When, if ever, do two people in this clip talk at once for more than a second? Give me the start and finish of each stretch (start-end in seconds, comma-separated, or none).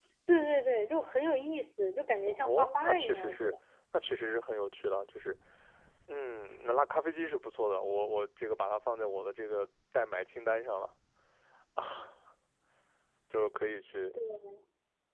2.2-3.5